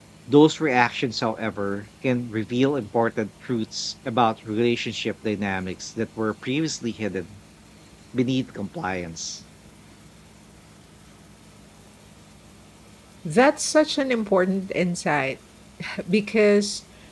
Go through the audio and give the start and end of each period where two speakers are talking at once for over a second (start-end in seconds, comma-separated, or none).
none